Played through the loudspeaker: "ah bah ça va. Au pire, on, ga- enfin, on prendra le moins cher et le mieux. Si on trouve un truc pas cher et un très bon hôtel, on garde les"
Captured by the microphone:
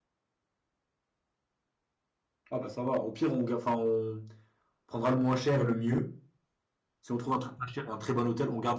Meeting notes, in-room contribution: none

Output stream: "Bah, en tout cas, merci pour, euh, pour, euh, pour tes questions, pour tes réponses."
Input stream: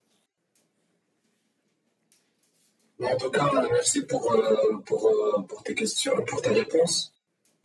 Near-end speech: none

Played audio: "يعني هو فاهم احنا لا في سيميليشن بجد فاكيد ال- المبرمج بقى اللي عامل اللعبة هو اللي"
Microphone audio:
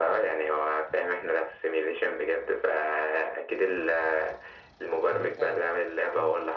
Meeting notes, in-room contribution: present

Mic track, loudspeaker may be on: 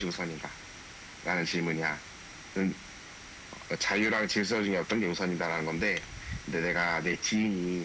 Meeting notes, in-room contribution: none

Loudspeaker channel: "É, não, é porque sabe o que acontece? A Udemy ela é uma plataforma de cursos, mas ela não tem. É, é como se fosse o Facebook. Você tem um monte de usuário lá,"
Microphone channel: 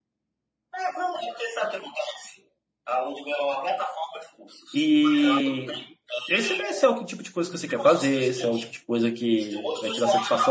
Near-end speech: present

